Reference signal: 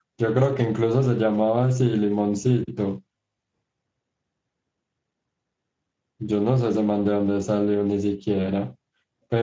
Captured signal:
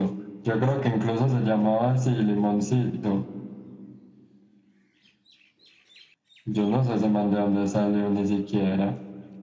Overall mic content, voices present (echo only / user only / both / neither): echo only